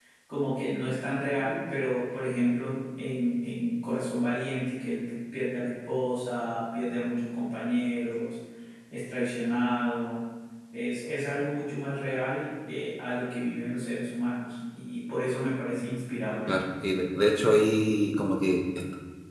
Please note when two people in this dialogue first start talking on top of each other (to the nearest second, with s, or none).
none